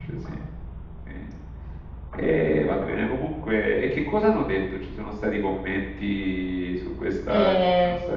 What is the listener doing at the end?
taking over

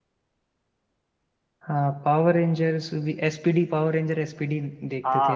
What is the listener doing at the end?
taking over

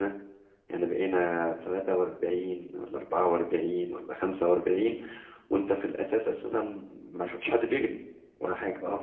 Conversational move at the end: listening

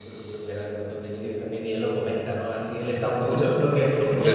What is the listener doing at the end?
listening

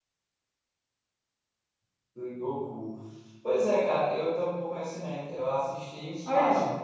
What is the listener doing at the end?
taking over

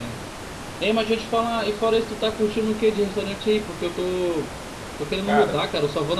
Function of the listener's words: listening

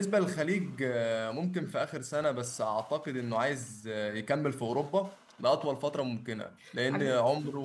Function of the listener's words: listening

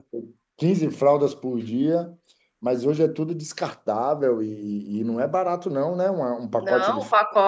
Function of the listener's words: taking over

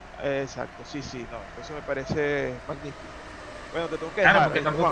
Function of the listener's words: taking over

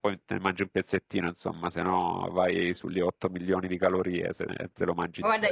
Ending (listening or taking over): taking over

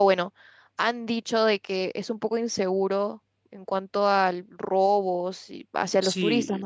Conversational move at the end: taking over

